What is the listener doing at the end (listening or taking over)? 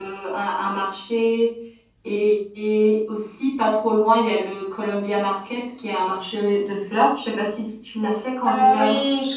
taking over